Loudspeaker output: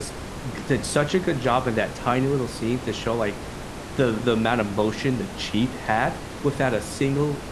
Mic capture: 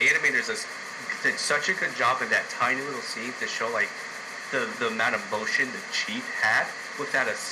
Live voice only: none

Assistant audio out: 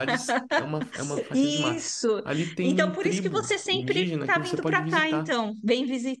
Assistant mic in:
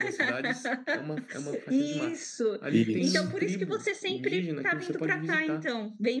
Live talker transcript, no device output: isso.

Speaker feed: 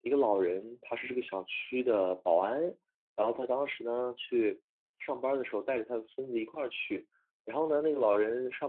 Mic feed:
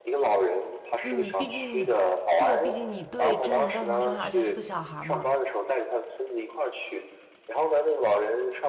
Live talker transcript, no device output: 嗯，毕竟，对，毕竟你对真人造成了伤害，而且还是个小孩儿嘛。

